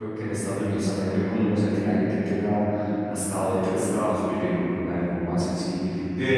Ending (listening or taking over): listening